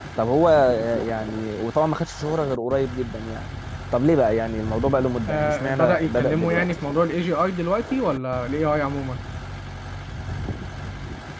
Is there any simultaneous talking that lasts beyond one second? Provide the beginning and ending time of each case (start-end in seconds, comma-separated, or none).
5.3-6.8